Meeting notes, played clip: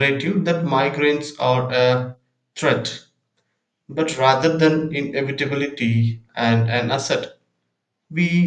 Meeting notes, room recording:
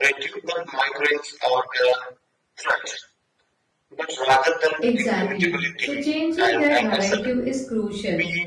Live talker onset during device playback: 5 s

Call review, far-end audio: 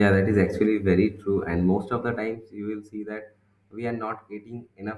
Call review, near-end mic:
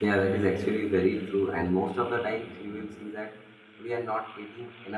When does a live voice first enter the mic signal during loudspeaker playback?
none

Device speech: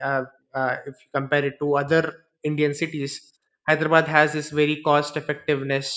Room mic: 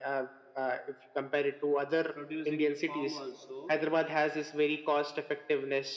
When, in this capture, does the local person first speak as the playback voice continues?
2 s

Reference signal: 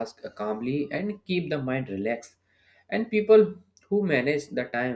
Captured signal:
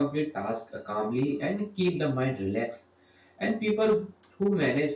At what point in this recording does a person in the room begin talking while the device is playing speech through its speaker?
none

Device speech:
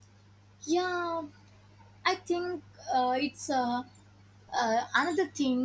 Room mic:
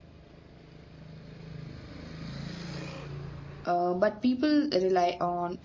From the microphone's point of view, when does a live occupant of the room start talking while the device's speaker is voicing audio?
4 s

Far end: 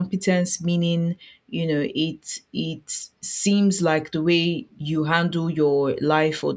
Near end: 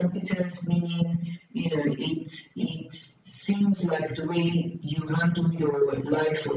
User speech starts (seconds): none

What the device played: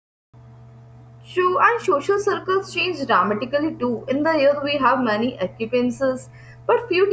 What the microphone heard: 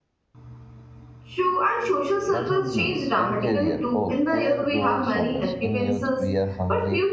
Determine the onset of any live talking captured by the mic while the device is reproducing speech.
2 s

